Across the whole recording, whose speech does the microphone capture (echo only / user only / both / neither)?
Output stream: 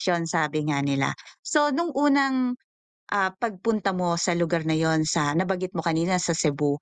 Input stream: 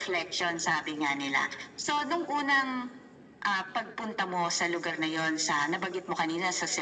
echo only